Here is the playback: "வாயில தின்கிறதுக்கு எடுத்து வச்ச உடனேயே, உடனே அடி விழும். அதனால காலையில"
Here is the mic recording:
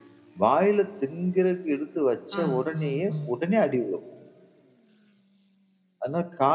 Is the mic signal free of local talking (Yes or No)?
No